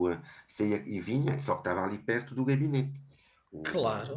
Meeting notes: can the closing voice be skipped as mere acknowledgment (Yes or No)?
No